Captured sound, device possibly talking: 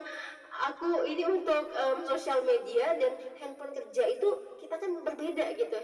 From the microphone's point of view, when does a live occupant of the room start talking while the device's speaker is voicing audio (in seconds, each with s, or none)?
none